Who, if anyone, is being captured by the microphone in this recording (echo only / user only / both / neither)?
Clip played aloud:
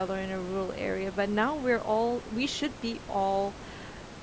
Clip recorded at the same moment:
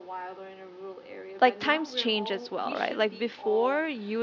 both